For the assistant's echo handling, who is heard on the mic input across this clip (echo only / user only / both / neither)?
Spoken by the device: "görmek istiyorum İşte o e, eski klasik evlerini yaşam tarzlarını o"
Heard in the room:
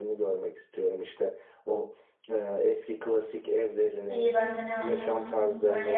both